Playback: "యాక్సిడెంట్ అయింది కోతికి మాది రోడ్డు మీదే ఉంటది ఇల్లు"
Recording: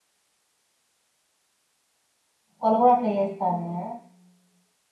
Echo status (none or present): none